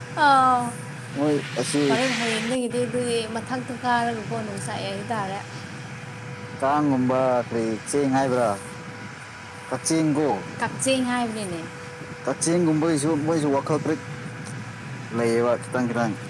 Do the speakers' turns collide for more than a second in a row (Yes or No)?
No